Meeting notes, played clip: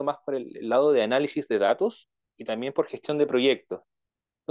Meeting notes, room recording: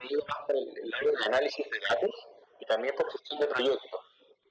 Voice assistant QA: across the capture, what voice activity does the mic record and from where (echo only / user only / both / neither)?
echo only